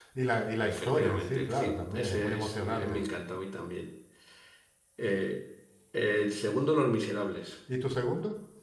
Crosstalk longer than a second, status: present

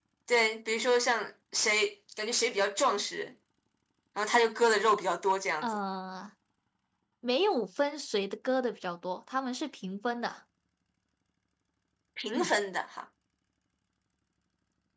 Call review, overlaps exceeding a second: none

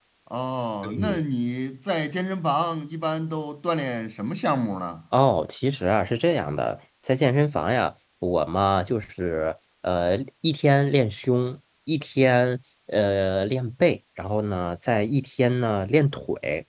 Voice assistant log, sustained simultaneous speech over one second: none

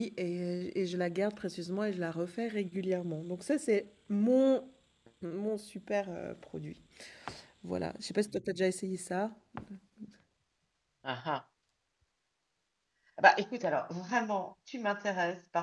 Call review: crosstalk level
none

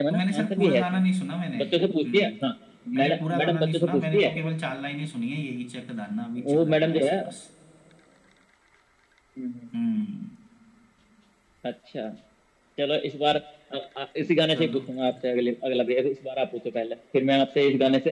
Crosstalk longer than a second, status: present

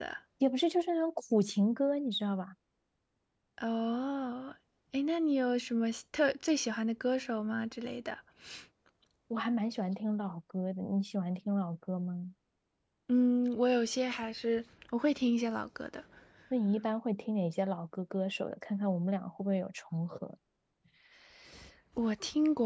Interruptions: none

